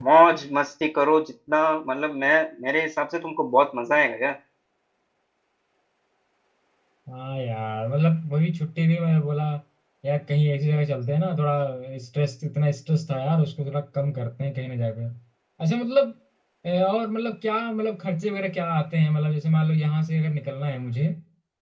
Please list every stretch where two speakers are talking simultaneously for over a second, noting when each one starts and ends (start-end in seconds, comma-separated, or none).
none